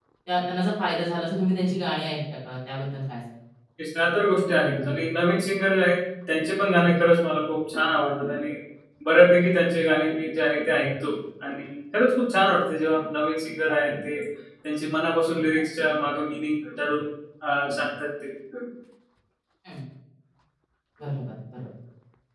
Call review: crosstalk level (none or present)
none